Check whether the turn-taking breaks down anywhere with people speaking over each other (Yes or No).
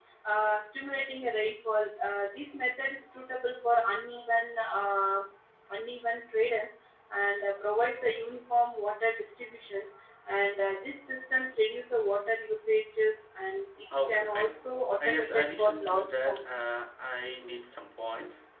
Yes